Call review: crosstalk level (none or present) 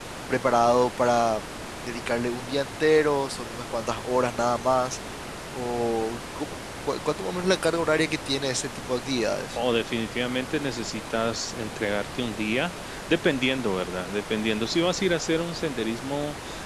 none